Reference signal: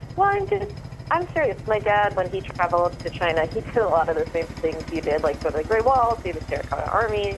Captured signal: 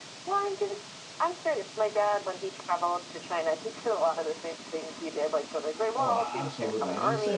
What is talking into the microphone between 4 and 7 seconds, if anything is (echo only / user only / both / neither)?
both